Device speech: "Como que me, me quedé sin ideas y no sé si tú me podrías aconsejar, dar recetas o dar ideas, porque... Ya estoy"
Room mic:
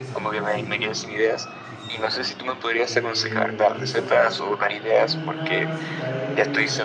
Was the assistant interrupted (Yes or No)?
Yes